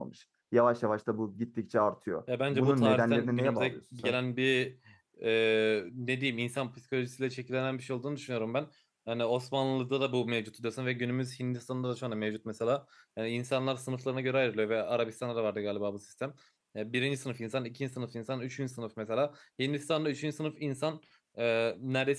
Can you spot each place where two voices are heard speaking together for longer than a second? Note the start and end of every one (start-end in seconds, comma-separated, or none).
2.5-4.2